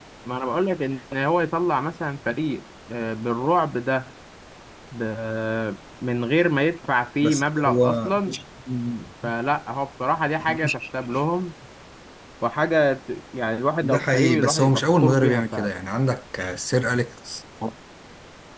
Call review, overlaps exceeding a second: present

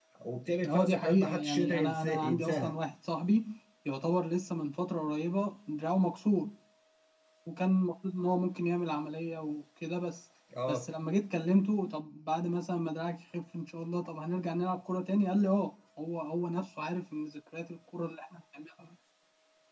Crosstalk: present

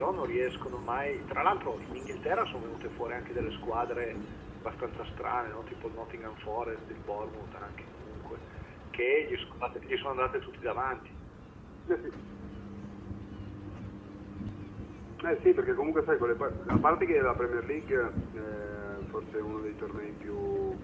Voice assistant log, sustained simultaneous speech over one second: none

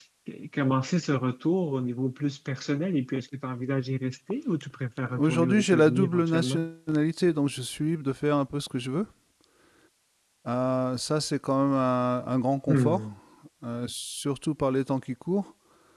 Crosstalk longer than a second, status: present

